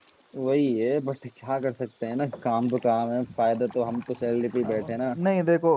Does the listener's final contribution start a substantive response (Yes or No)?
Yes